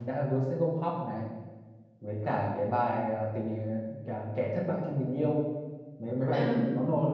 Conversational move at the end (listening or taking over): listening